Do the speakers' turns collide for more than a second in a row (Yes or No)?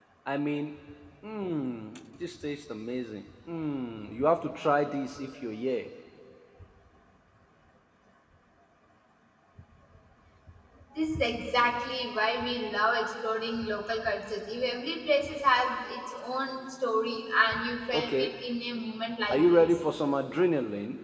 No